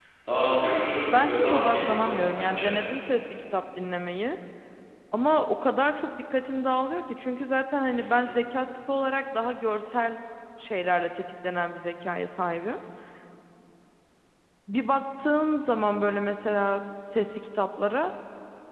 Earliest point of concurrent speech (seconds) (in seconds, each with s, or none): 1.2 s